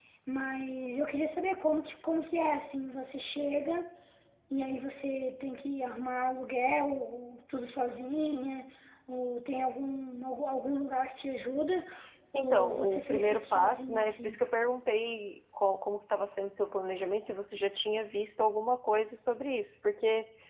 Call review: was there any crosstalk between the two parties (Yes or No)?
Yes